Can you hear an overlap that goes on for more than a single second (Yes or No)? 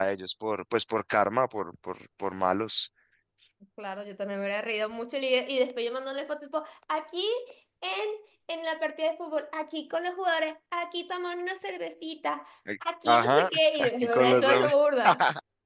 Yes